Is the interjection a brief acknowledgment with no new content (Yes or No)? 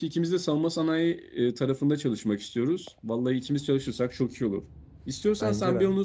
Yes